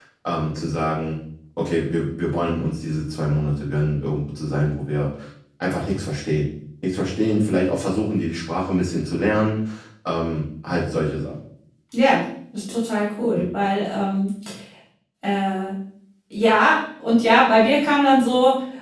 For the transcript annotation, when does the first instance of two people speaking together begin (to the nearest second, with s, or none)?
none